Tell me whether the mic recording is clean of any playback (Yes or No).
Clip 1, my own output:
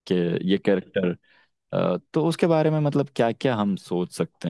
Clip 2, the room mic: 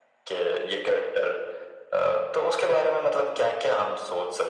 No